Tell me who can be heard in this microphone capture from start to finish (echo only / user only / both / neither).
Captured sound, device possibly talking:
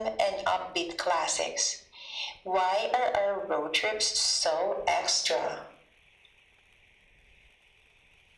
echo only